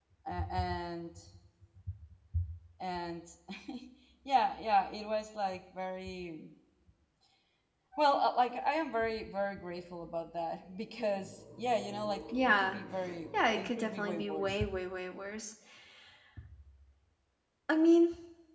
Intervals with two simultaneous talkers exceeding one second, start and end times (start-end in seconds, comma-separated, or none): 13.3-14.6